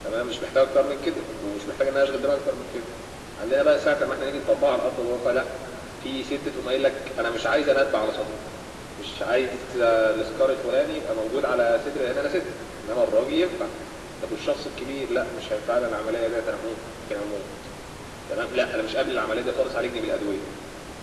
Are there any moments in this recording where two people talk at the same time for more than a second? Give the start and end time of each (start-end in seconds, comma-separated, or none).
none